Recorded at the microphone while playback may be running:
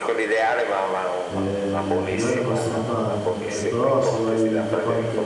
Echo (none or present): present